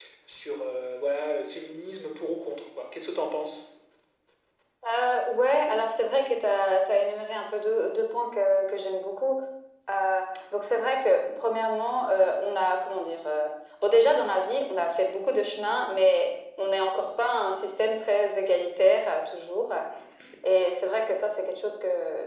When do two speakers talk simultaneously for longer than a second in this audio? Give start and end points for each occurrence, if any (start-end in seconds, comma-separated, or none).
none